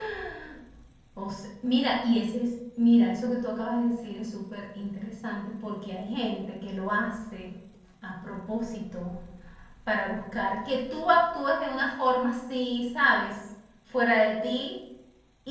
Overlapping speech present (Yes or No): No